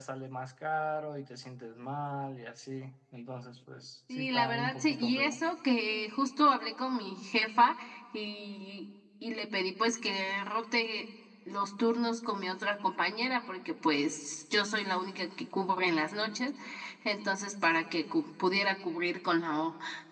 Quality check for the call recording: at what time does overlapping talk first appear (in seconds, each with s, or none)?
4.1 s